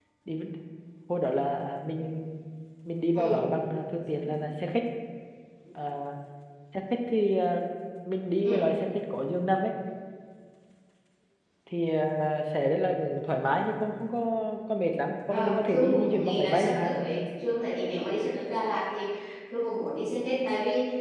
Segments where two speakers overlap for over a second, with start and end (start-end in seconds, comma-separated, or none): 15.3-16.9